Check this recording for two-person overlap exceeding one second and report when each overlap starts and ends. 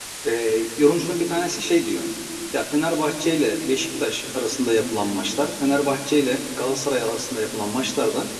none

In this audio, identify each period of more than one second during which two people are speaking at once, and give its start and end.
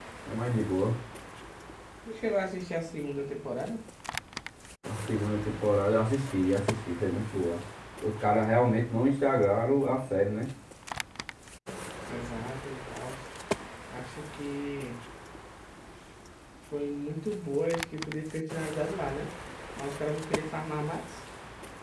none

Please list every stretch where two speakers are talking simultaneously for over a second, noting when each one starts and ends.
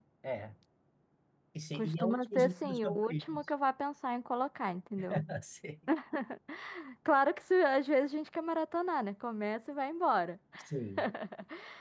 1.7-3.4

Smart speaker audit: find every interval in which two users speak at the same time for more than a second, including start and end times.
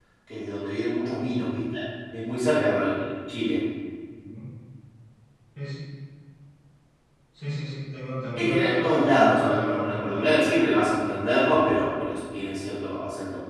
8.3-10.3

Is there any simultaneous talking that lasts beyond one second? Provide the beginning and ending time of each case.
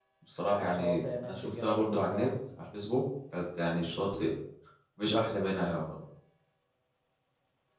0.6-2.3

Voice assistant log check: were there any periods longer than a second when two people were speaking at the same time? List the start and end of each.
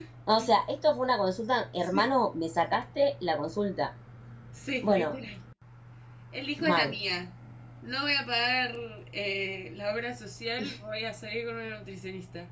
none

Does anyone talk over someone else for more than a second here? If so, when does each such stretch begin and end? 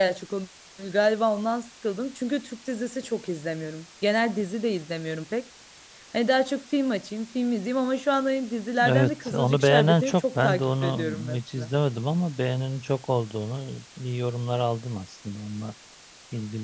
8.9-11.7

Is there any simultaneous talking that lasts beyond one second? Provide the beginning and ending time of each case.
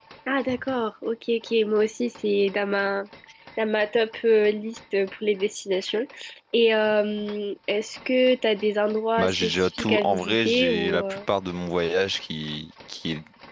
9.2-11.2

